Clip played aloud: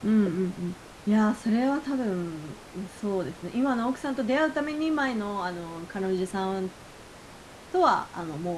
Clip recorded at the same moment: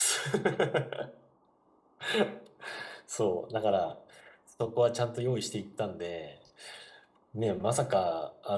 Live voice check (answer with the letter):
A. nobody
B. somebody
B